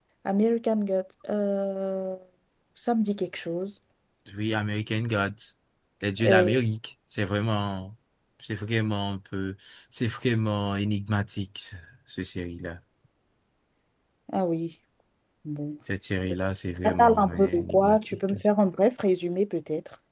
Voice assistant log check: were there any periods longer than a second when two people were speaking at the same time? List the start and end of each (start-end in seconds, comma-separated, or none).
16.8-18.4